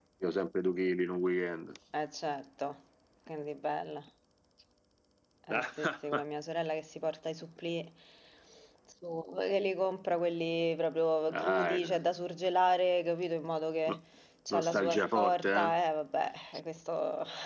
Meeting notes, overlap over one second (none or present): present